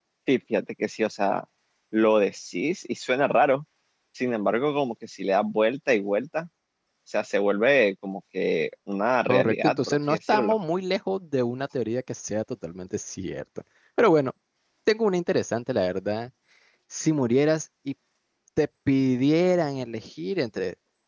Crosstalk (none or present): present